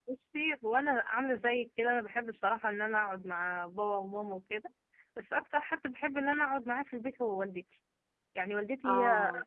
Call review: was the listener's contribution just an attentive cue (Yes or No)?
Yes